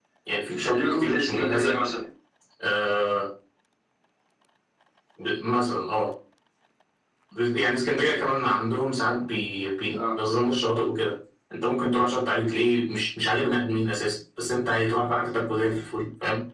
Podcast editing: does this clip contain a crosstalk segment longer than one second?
Yes, from 0.6 s

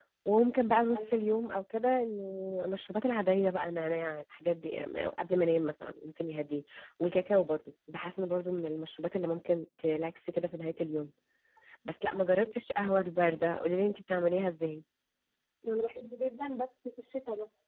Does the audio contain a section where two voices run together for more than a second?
No

